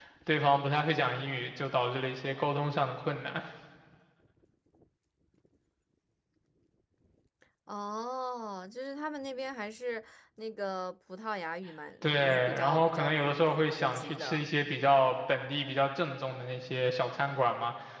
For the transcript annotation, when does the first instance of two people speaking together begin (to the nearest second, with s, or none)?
12 s